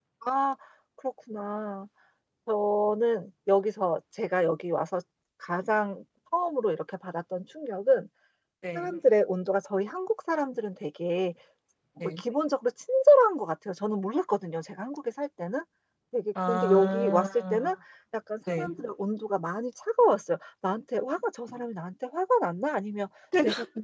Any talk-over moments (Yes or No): Yes